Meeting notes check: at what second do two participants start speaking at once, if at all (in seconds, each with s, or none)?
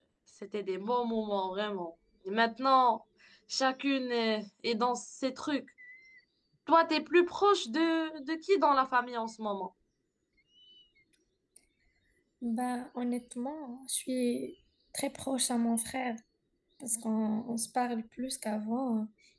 none